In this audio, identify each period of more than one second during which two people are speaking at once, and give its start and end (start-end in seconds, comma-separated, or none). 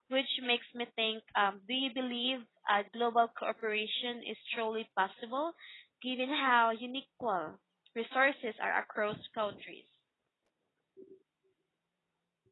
none